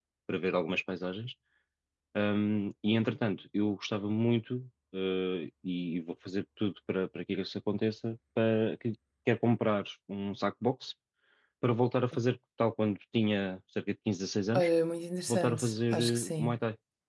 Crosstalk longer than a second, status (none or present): present